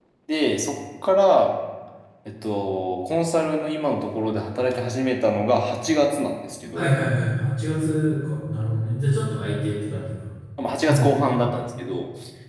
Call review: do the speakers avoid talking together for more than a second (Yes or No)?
Yes